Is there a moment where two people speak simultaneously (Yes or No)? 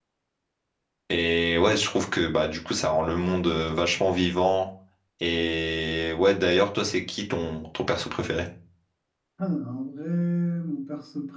No